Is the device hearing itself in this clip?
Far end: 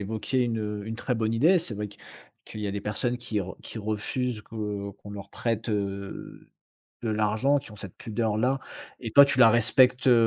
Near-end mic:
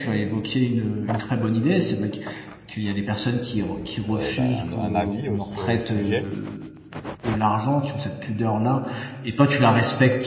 Yes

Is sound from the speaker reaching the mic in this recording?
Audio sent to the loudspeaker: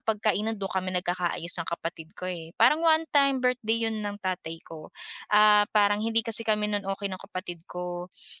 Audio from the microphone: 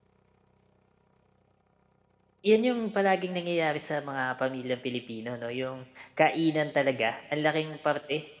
No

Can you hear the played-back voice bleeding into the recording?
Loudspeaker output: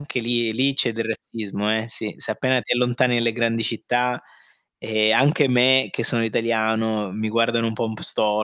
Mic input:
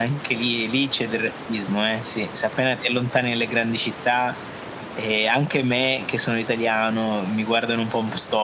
Yes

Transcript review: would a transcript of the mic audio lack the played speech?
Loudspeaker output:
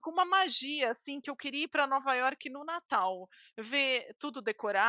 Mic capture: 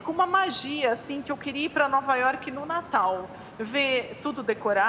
No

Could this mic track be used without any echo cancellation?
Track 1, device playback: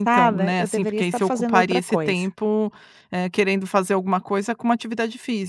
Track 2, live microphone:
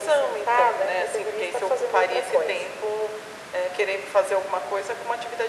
No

